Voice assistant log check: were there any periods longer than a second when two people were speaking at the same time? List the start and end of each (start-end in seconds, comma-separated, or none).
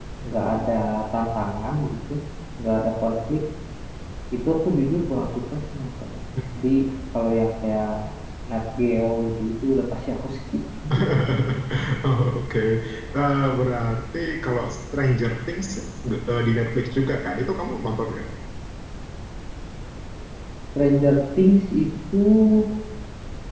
none